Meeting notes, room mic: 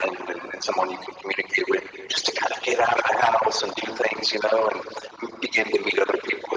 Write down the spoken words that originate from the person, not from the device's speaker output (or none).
none